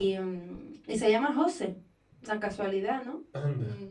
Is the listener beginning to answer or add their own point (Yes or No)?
No